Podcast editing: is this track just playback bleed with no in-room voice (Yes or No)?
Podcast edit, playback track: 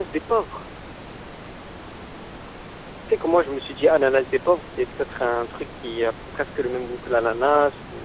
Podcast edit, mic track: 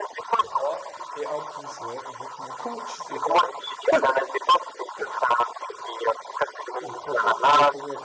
No